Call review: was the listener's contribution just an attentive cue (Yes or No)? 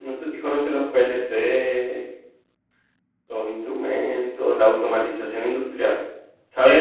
Yes